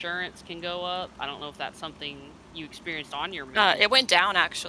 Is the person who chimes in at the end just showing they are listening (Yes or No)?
No